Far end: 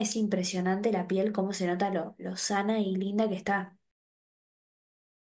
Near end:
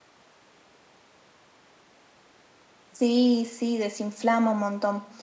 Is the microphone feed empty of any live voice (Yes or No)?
No